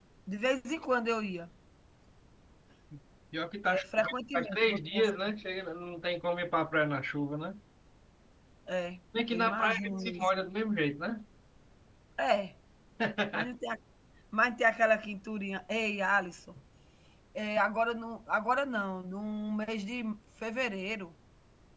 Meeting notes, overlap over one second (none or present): present